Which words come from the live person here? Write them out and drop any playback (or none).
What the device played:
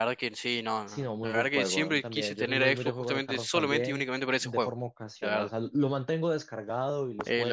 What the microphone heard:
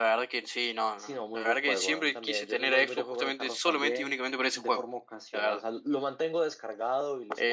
none